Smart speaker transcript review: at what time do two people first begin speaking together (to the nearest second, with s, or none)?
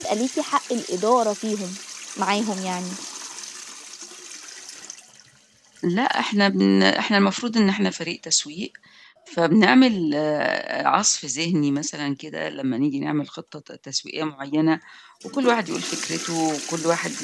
none